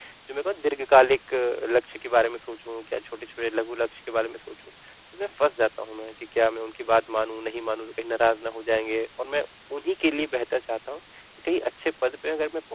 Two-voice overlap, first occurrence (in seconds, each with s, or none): none